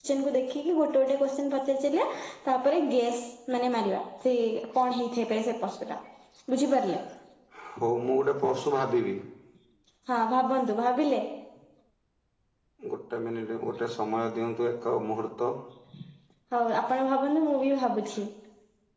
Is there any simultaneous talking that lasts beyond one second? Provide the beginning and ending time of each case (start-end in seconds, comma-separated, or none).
none